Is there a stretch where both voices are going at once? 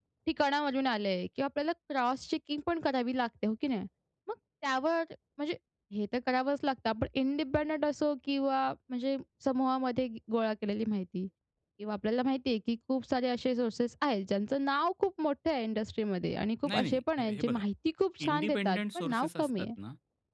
Yes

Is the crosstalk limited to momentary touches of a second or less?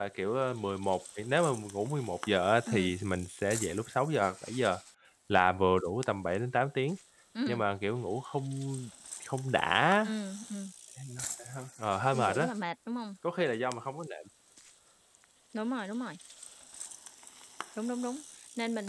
Yes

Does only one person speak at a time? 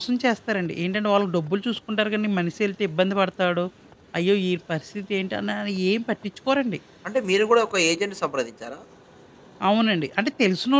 Yes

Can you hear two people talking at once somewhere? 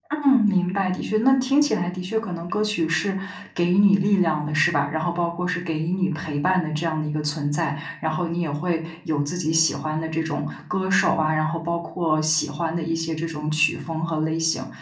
No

